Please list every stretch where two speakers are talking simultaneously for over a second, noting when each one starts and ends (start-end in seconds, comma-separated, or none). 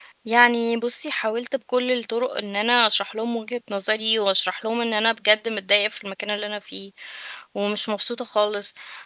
none